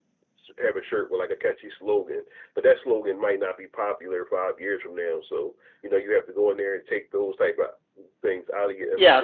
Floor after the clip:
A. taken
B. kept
A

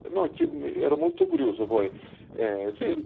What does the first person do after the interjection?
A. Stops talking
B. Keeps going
B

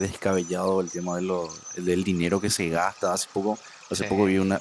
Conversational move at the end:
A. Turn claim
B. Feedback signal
B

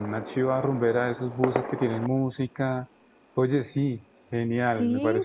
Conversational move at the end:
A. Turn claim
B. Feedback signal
A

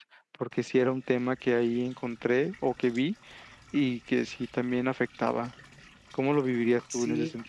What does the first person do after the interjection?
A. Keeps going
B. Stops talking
B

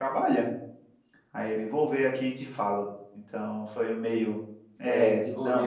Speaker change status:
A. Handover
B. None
A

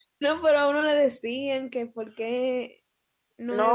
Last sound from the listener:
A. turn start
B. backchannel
A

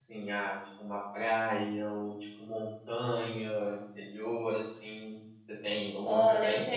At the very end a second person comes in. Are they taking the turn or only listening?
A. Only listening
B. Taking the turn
B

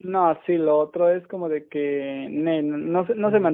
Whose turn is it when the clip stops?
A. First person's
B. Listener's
B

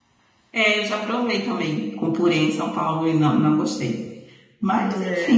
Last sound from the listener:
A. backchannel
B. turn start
A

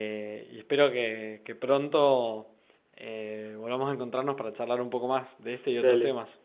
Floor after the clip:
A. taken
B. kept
A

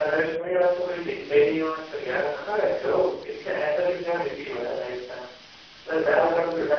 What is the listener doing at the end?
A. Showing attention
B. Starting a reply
A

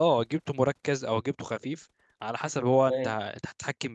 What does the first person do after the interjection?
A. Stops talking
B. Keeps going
B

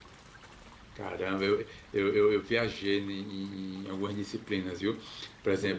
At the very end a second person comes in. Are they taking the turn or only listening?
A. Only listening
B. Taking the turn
A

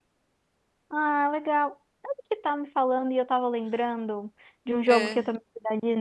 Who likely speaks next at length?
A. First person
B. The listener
A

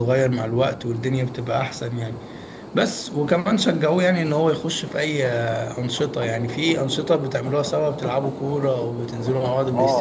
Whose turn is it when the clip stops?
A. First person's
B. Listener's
B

